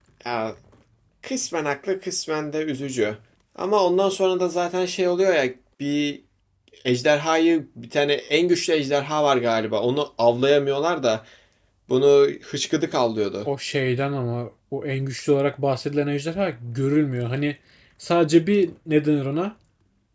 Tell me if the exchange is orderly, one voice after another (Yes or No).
Yes